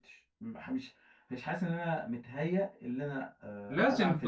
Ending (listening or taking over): taking over